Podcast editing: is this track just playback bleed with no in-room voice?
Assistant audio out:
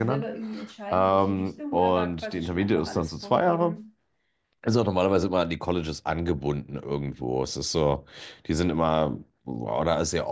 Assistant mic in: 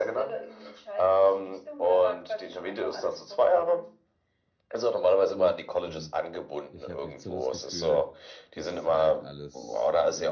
No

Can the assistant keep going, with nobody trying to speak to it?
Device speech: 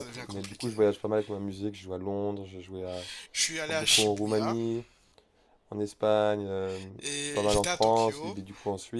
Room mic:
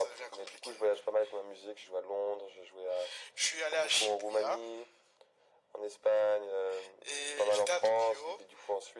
Yes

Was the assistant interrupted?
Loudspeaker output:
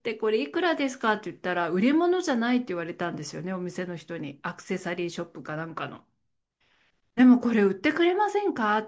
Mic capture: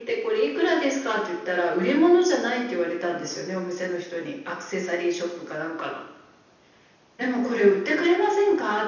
No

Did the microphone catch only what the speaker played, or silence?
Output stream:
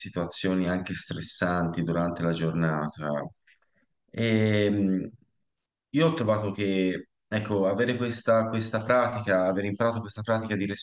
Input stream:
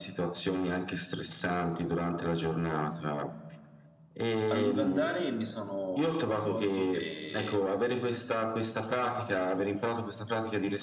No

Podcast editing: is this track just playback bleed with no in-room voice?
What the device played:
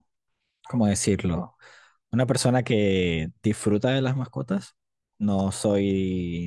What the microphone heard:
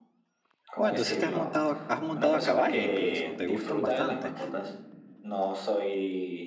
No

